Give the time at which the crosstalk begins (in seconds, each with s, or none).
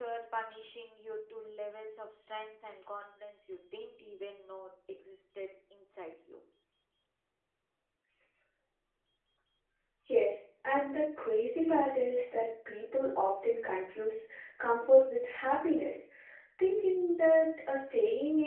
none